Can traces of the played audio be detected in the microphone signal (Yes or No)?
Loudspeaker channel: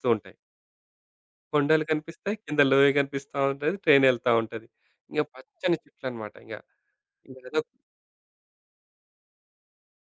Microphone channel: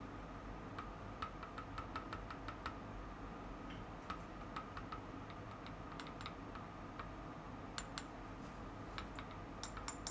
No